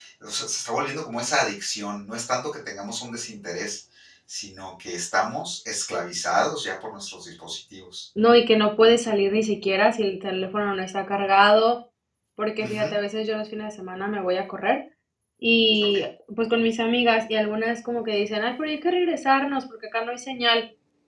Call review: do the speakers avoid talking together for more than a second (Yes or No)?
Yes